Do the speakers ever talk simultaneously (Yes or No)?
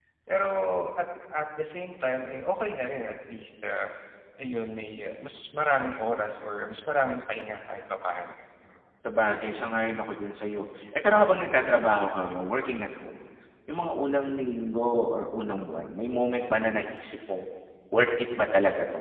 No